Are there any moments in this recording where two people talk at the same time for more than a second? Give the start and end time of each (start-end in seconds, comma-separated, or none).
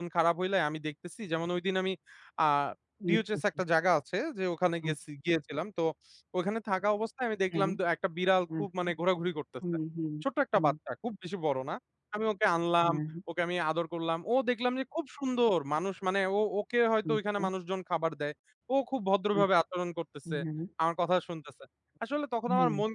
none